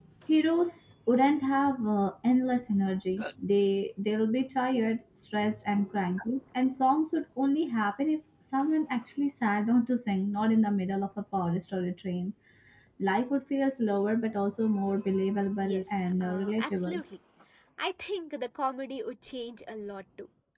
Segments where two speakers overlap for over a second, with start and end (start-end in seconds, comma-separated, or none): 15.6-17.0